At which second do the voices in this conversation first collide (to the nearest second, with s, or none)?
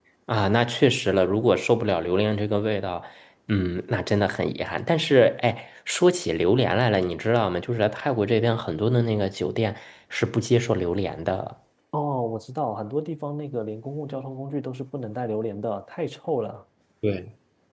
none